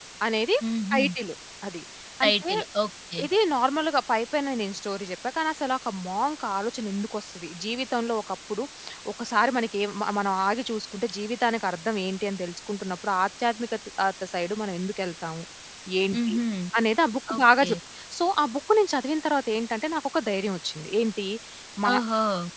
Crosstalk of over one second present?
No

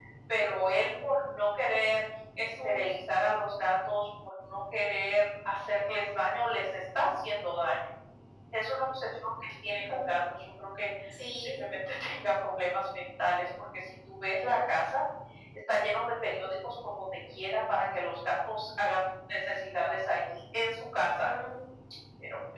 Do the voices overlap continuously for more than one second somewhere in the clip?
No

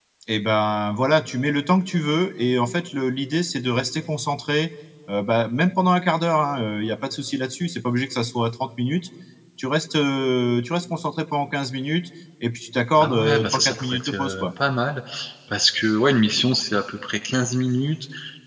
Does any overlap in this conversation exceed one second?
Yes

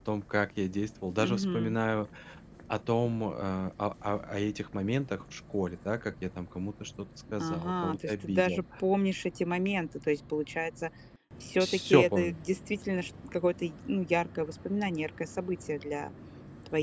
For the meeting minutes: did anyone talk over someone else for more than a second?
Yes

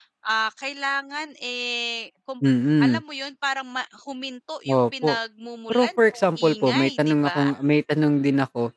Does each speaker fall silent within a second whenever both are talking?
No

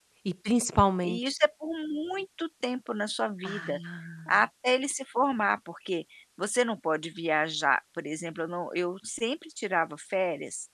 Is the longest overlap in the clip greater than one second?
No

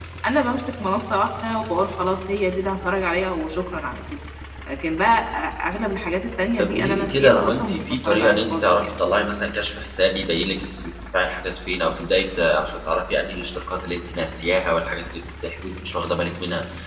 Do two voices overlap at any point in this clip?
Yes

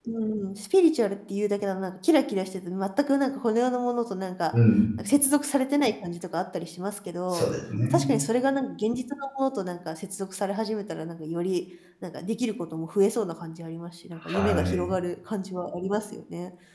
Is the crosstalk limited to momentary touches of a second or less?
Yes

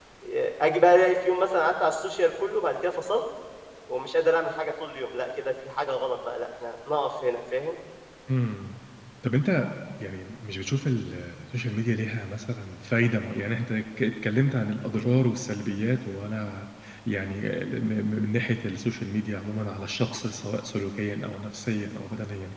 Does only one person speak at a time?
Yes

